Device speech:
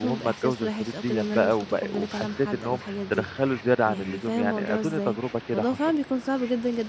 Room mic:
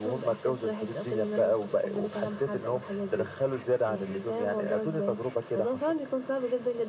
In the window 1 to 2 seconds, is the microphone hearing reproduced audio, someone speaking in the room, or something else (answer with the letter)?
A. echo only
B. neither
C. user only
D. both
A